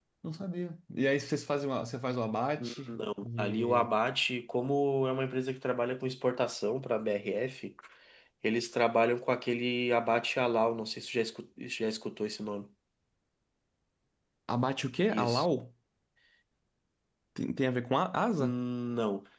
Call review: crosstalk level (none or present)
present